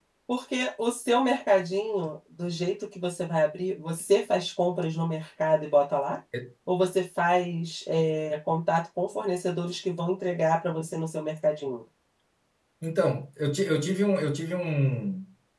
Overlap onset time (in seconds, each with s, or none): none